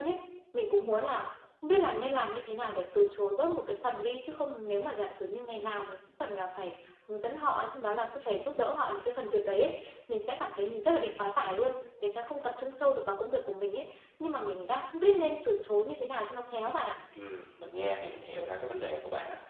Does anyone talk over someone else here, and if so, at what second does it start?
none

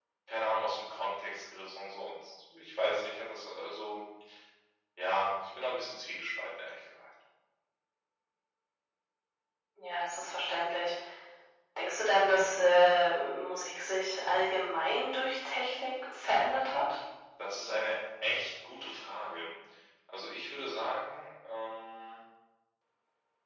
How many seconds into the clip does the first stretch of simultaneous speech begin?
none

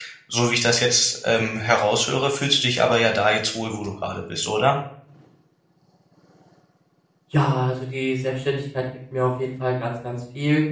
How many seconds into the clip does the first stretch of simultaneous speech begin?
none

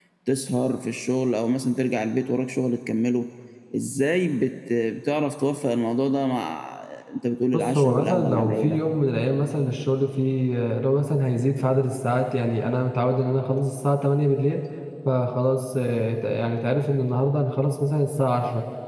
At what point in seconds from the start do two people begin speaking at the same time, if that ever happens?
7.5 s

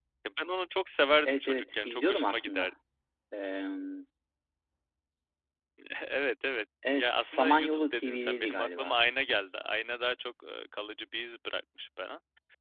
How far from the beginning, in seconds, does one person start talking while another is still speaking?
1.2 s

